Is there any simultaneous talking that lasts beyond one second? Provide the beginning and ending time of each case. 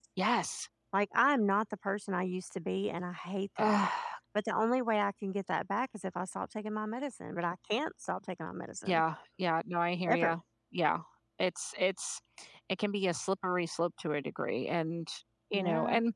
none

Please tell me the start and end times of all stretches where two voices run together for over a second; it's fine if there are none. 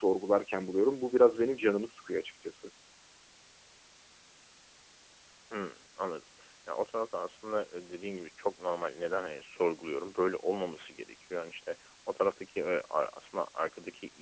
none

